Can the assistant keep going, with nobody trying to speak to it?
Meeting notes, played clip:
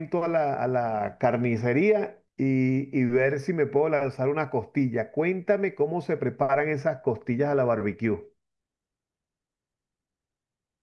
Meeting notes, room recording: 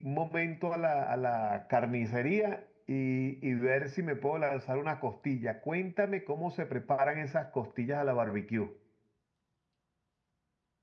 Yes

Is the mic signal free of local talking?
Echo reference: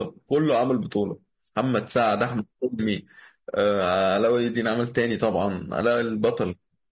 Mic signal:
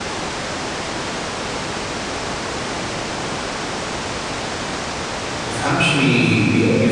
No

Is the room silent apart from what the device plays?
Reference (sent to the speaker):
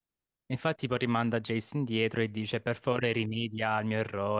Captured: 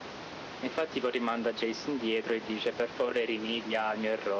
Yes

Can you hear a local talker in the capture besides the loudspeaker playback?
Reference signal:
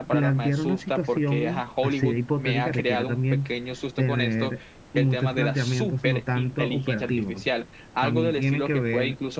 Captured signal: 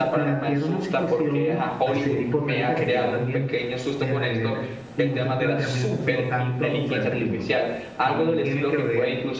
No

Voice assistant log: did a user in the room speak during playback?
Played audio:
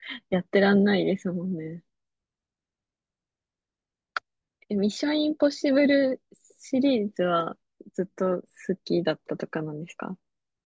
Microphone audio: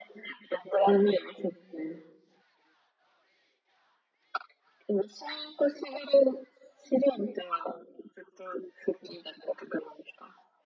No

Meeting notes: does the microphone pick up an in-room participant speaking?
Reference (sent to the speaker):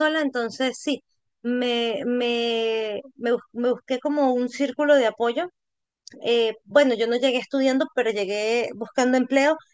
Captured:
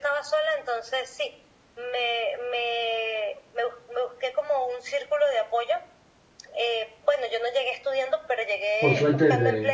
Yes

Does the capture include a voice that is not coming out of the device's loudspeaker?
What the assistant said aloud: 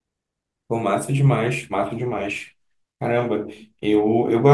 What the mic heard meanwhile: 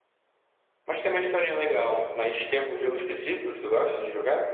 Yes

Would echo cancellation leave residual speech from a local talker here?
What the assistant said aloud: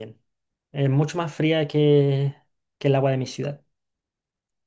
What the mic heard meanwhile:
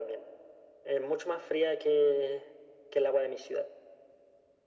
No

